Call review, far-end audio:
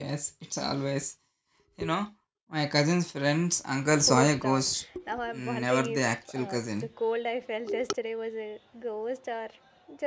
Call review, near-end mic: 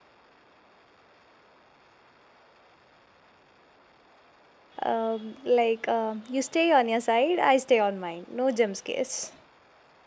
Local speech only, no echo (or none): Um, like, um, you stay on your side, I stay on mine. No jump scares.